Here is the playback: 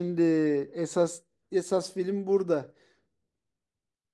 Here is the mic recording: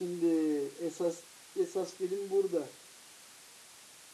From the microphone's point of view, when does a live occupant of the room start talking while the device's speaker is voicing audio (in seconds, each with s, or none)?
none